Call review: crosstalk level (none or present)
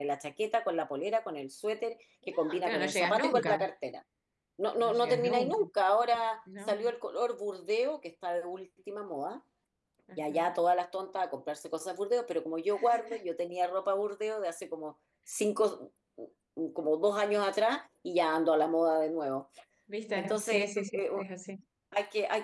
present